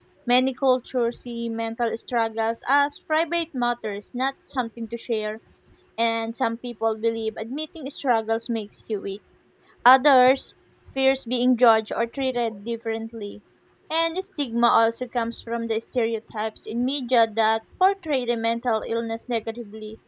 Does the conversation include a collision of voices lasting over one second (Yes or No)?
No